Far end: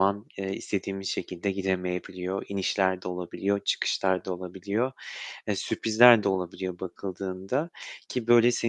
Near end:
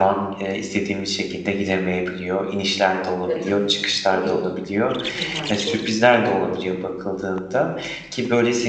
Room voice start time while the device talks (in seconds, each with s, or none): 3.2 s